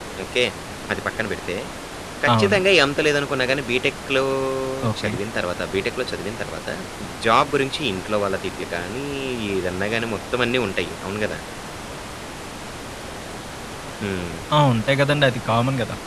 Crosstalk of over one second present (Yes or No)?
No